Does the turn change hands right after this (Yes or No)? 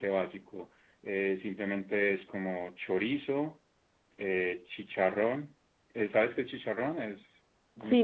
Yes